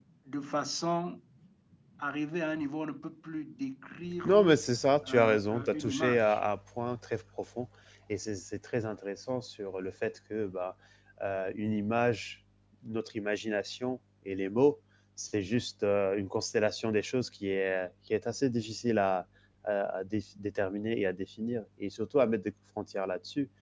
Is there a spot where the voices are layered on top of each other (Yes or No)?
Yes